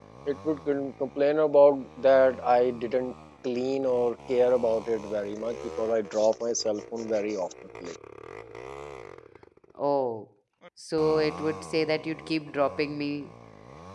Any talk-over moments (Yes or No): No